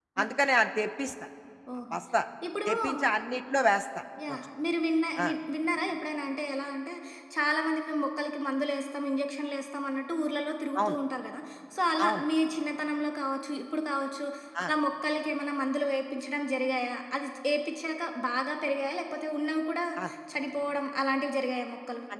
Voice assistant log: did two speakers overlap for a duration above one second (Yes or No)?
No